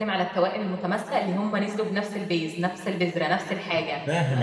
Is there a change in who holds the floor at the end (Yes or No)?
No